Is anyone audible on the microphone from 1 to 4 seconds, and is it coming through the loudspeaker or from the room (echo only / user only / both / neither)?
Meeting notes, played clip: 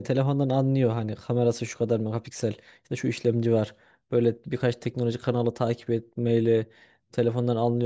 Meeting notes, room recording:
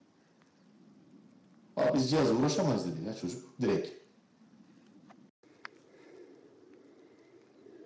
user only